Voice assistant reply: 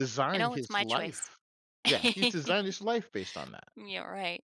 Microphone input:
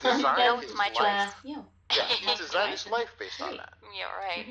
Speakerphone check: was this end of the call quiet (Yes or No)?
No